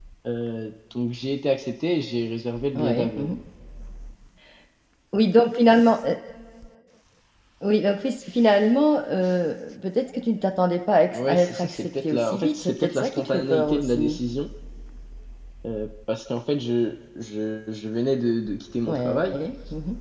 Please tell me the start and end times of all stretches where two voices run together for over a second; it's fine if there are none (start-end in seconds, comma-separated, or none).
11.1-14.2